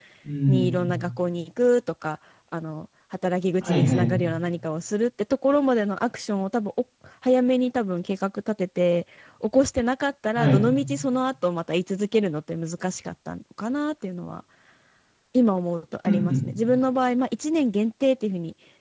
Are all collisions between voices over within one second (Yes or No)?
Yes